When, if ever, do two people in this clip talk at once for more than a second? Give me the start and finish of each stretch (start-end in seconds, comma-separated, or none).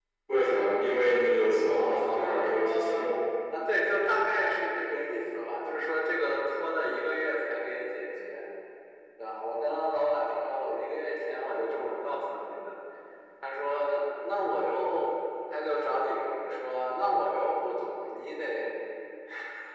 1.7-3.1